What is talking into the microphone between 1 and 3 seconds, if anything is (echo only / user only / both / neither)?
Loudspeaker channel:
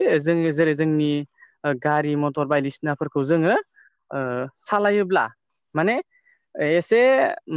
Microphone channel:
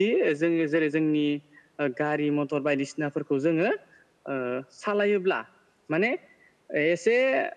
echo only